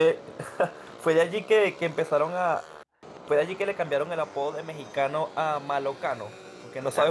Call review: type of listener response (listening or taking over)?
taking over